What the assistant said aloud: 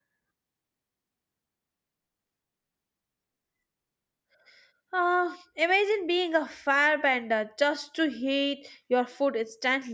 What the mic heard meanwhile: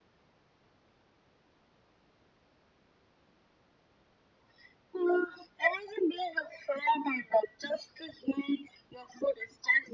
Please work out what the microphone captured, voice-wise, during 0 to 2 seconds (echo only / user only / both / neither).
neither